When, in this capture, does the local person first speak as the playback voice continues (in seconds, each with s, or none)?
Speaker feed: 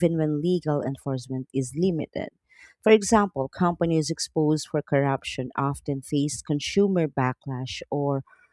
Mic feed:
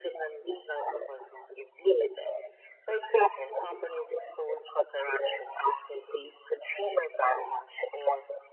none